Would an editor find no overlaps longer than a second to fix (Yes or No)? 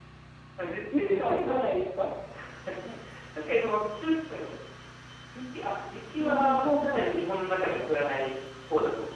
No